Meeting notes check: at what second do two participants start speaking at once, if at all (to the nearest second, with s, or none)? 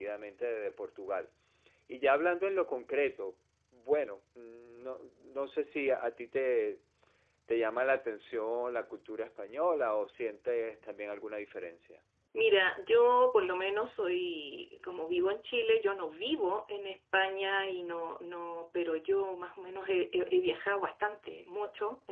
none